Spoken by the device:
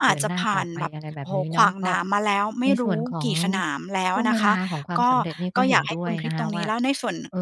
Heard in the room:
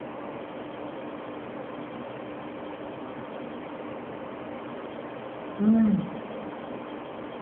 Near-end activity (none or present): present